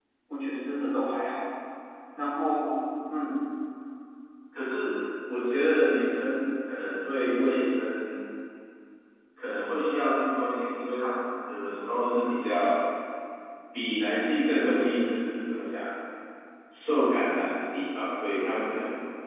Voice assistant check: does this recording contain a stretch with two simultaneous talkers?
No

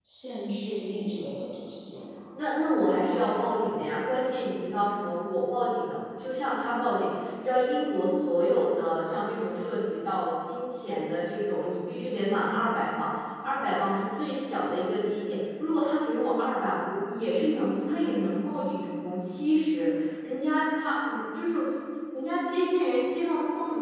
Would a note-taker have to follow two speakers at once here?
No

